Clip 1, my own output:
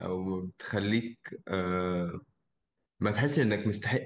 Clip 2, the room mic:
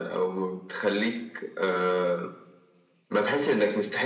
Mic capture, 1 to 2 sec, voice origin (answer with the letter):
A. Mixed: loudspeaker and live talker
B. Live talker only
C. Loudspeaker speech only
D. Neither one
C